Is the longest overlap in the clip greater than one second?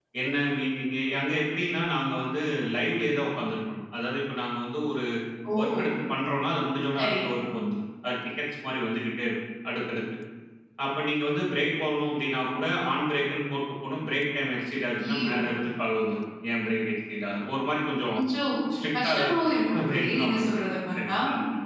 Yes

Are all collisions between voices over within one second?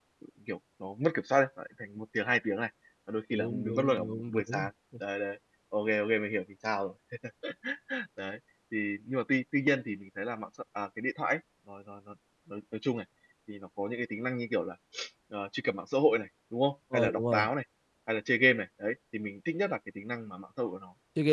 No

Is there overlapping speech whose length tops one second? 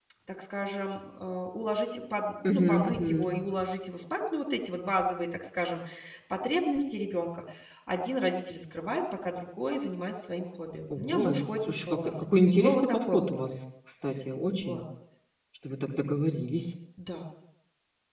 Yes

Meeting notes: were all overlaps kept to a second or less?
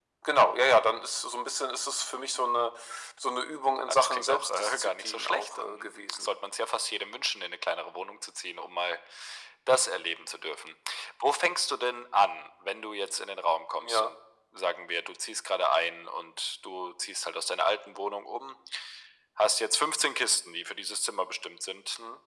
No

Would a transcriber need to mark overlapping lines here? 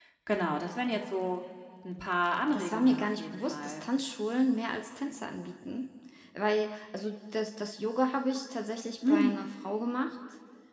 Yes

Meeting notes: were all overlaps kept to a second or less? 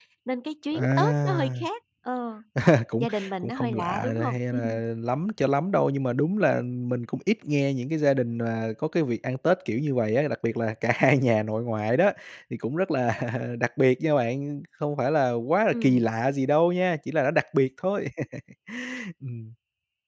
No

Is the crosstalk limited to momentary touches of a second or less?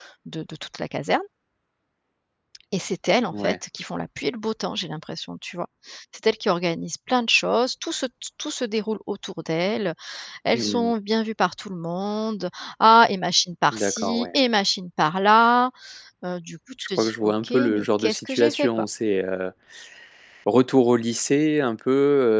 No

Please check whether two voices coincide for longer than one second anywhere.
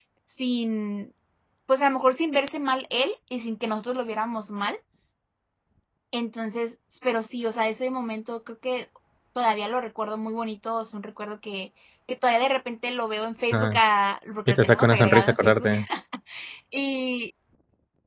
Yes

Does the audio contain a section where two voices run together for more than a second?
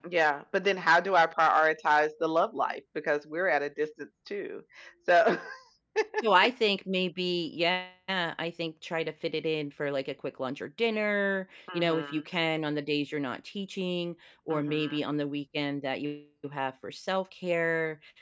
No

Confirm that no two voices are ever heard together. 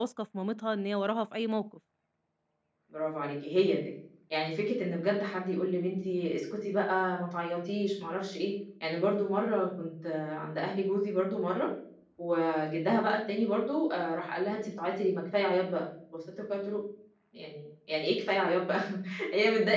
Yes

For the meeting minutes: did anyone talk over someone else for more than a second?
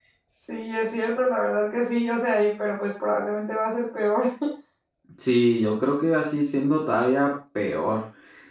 No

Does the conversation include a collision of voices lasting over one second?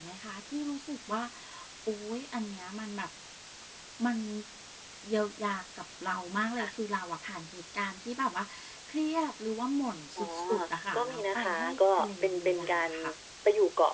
Yes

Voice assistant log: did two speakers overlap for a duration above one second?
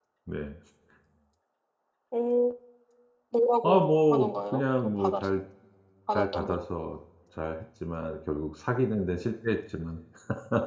Yes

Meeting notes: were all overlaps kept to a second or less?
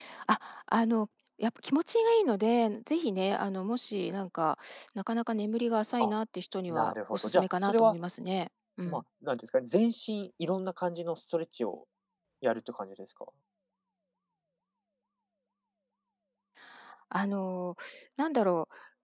No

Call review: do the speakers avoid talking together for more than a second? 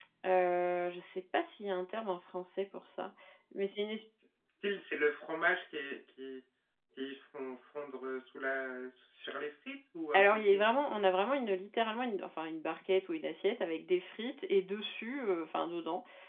Yes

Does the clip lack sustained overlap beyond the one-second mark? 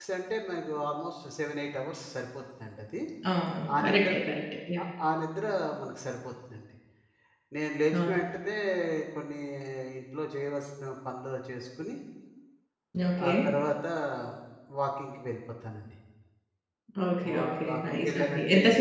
No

